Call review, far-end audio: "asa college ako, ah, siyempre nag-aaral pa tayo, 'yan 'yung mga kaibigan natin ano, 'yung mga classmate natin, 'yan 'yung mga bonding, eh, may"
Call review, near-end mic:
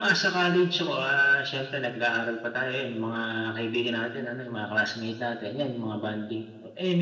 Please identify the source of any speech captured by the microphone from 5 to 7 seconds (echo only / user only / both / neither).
echo only